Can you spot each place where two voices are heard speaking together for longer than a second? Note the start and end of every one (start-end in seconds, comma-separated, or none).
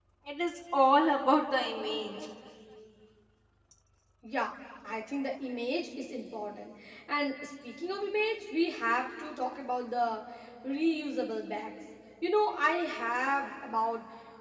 none